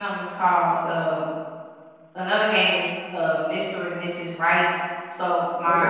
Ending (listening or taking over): listening